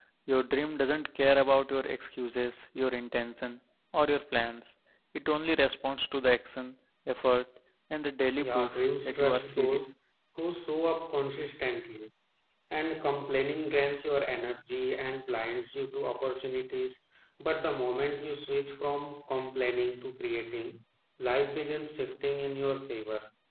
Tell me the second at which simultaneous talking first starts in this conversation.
8.4 s

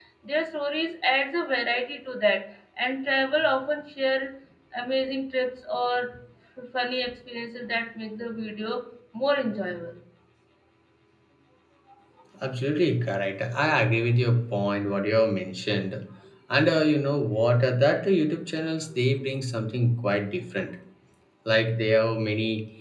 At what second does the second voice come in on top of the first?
none

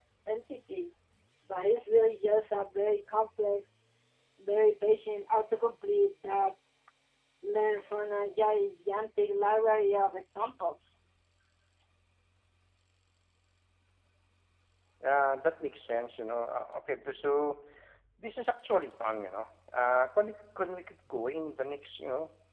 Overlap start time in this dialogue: none

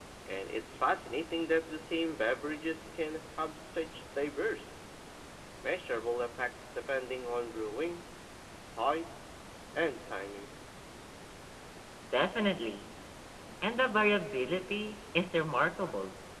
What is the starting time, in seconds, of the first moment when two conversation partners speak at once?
none

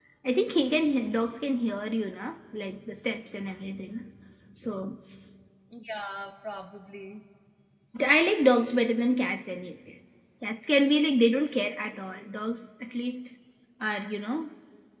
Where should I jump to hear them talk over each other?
none

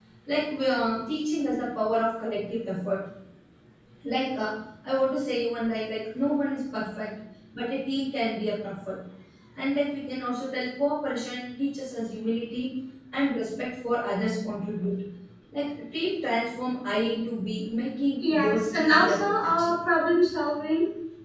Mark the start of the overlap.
18.2 s

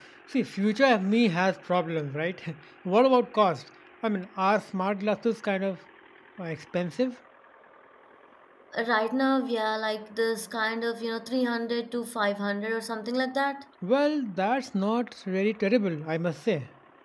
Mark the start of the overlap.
none

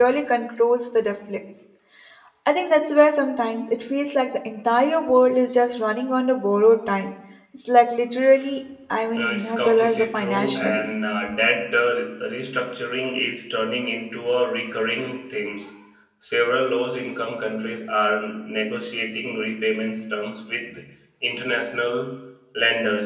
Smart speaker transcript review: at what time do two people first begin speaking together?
9.1 s

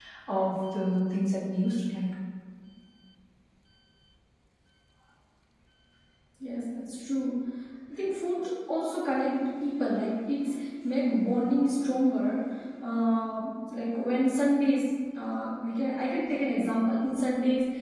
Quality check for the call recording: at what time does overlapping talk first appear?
none

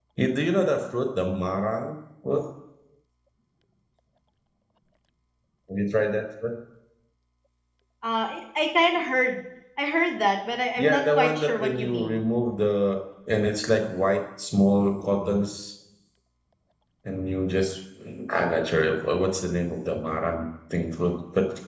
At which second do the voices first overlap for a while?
10.8 s

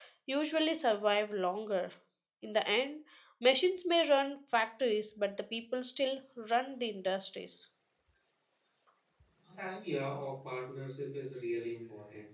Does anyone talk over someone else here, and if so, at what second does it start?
none

